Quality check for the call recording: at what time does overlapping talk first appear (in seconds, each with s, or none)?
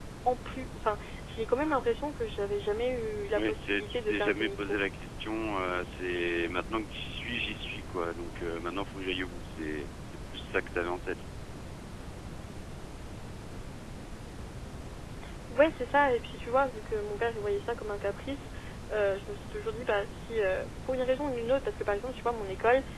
3.4 s